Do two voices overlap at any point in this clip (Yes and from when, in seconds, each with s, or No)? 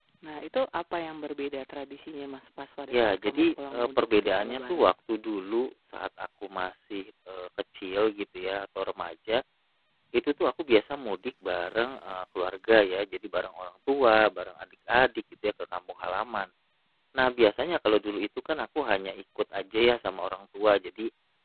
Yes, from 2.9 s